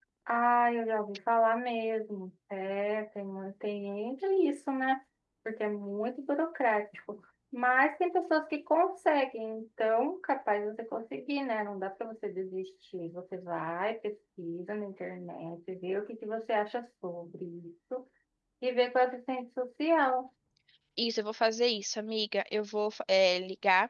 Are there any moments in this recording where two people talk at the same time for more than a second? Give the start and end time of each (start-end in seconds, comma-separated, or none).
none